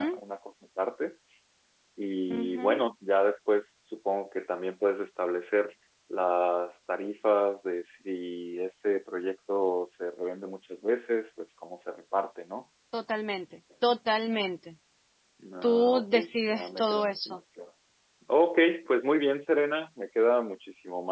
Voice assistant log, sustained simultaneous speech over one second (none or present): present